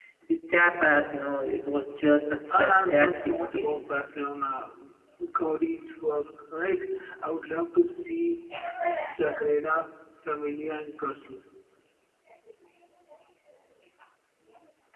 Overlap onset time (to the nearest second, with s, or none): 3 s